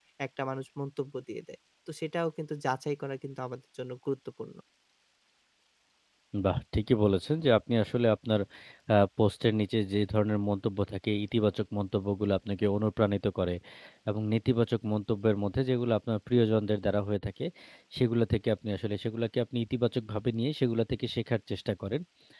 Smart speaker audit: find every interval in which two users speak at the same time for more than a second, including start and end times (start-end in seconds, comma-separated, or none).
none